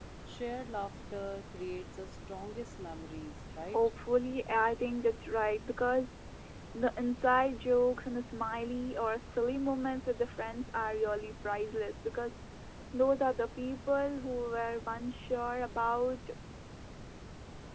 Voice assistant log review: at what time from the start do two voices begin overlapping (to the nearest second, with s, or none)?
none